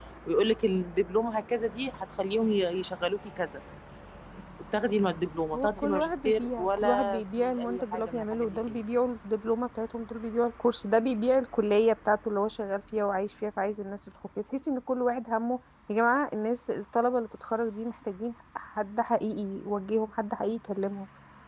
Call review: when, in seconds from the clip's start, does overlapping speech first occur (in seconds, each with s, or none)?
5.5 s